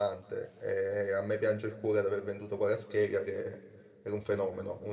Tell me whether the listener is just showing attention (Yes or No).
Yes